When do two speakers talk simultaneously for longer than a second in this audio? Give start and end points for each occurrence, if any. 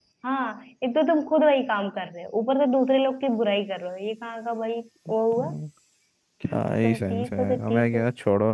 6.6-8.0

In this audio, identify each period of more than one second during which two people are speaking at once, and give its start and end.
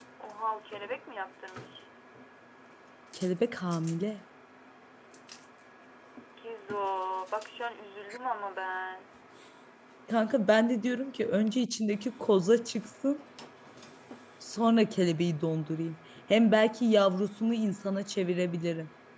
none

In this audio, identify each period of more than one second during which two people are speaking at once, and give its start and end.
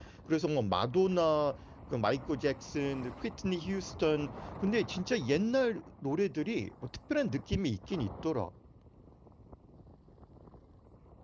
none

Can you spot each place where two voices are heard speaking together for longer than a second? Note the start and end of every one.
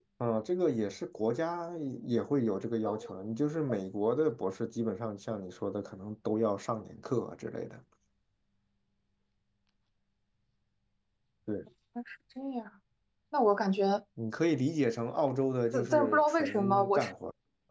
15.7-17.1

